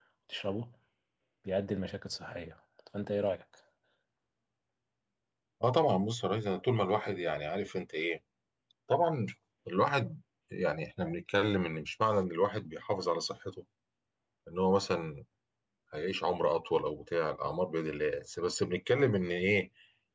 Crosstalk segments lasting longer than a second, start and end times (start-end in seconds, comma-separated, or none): none